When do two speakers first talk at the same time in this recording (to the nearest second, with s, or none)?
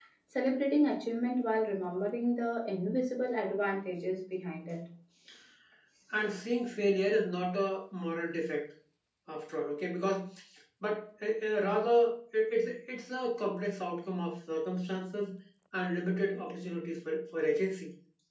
none